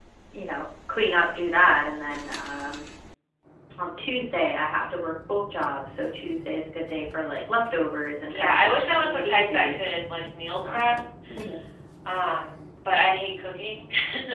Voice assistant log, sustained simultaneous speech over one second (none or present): present